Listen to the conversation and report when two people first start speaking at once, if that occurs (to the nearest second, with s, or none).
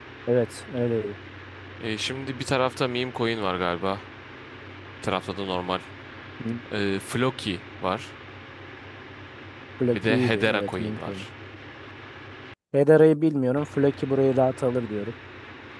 10 s